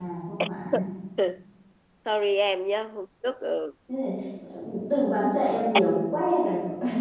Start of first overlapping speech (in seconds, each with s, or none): none